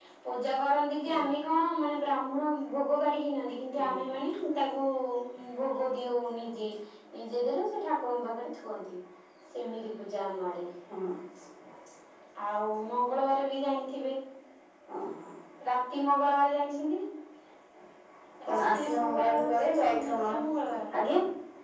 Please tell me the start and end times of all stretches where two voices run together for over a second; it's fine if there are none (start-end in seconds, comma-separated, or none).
18.5-20.3